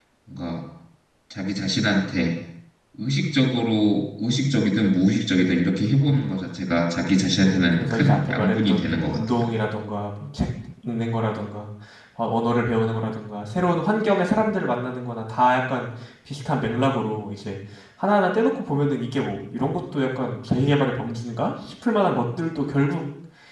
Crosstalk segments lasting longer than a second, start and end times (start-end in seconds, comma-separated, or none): 7.3-9.4